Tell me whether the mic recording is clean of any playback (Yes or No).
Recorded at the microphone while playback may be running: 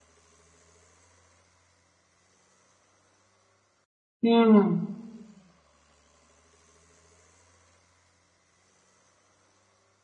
Yes